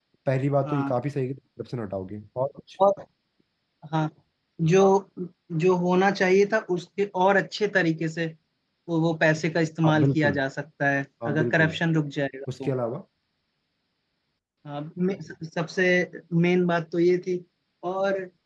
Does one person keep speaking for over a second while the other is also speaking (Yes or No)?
No